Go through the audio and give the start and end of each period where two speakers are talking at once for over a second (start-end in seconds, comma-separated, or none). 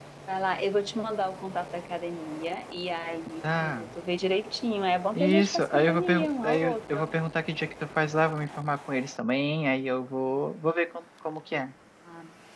5.1-7.2